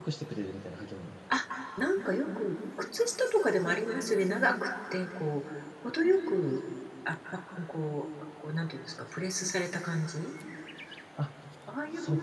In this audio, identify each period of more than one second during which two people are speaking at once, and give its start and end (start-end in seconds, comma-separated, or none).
none